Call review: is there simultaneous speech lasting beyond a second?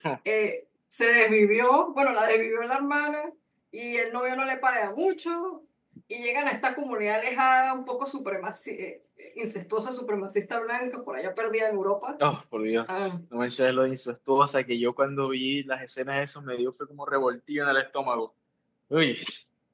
No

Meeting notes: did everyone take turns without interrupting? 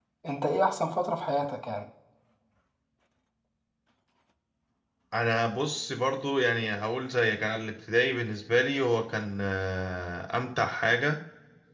Yes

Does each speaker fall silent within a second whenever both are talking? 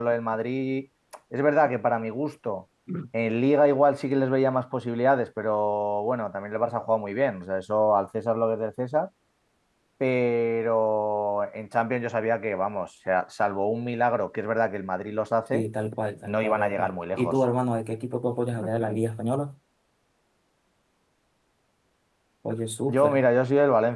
No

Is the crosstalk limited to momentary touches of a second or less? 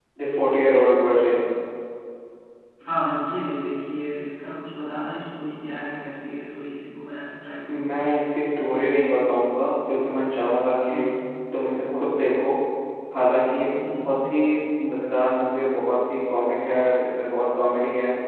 Yes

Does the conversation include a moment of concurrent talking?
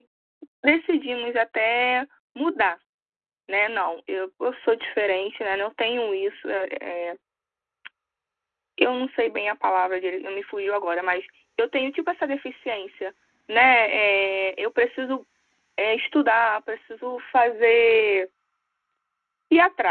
No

